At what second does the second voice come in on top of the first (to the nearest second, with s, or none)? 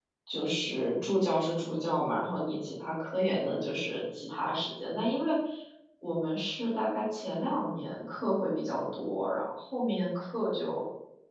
none